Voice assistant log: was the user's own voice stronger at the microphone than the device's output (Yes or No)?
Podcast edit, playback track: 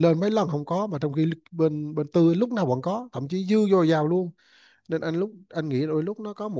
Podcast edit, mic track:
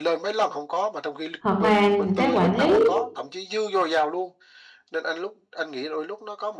Yes